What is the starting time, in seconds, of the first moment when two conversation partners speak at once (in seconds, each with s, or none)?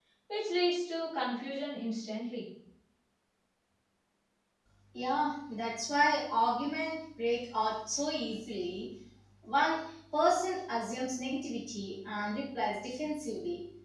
none